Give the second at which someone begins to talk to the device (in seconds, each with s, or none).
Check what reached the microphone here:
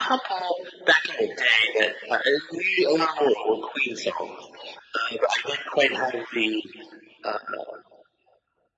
none